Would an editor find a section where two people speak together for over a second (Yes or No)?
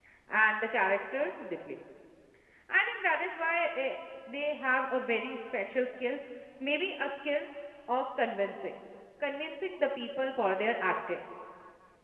No